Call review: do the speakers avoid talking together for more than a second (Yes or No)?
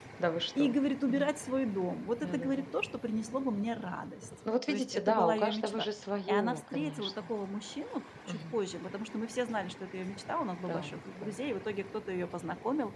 No